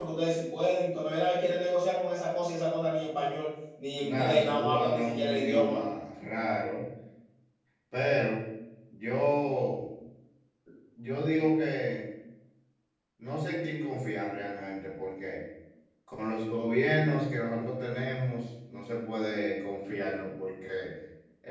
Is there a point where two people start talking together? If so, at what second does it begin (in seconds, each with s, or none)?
4.0 s